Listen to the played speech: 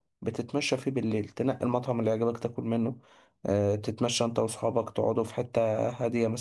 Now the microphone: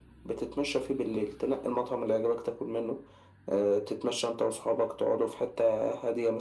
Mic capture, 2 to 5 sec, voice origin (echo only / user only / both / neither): echo only